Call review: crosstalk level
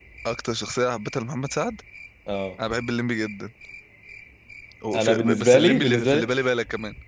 present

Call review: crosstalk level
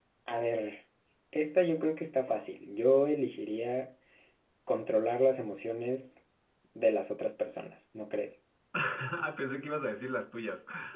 none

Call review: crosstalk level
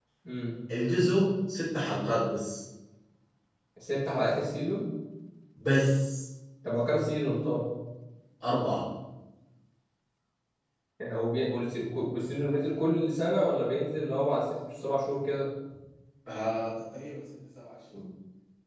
none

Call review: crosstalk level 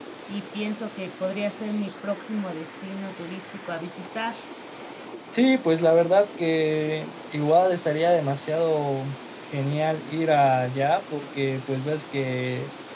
none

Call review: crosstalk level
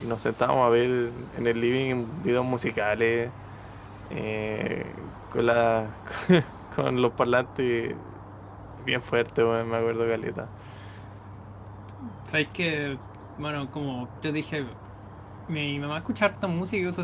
none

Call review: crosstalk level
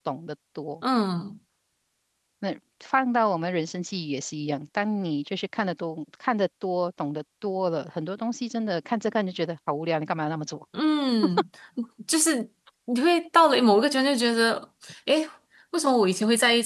none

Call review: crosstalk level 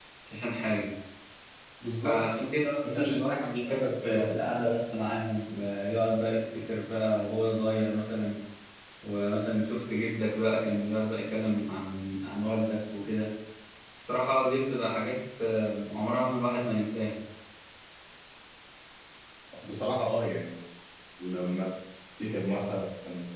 present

